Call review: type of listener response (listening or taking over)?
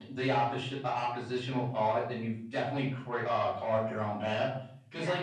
listening